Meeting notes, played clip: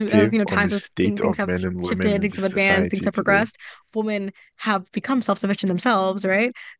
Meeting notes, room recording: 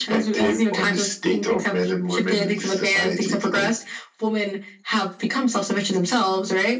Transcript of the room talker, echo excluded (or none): none